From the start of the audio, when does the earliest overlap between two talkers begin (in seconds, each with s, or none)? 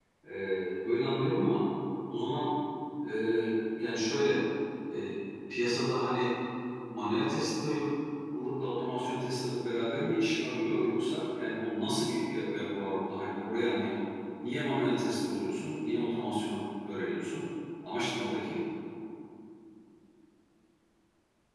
none